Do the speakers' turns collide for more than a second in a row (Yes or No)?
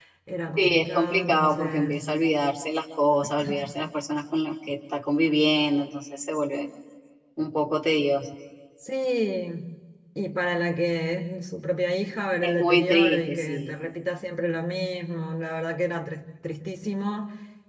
Yes